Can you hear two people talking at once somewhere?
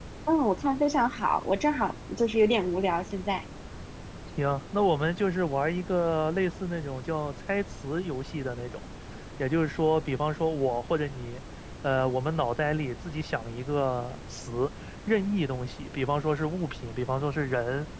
No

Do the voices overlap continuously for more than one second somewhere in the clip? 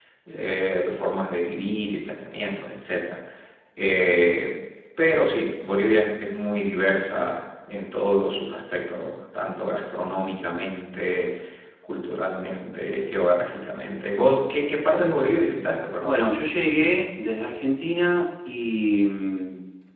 No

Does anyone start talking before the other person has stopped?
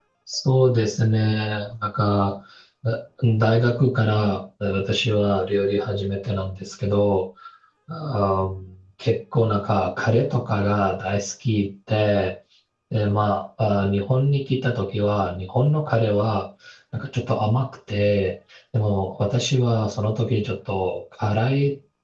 No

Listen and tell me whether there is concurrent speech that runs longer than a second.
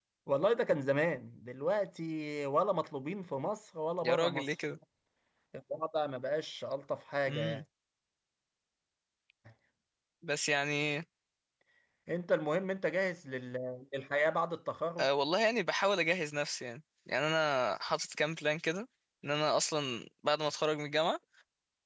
No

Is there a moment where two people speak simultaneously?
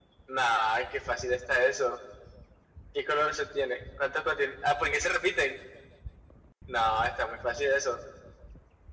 No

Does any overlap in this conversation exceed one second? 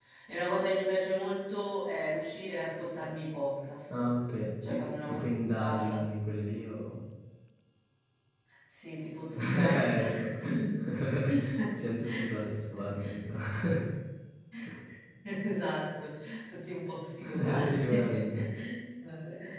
Yes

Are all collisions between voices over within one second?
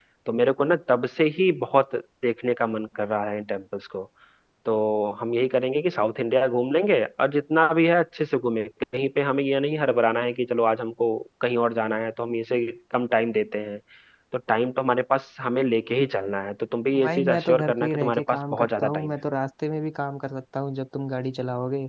No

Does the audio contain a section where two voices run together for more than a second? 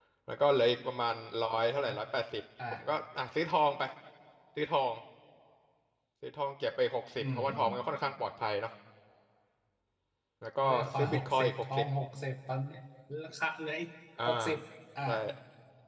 Yes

